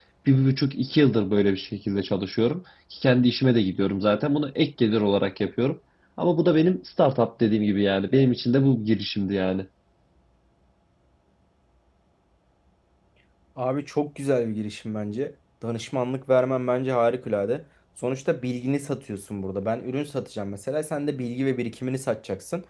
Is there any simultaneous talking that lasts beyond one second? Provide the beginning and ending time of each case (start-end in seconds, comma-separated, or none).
none